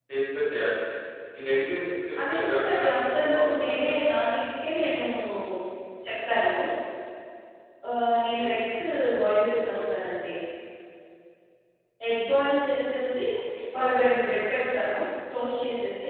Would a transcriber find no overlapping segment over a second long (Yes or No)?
No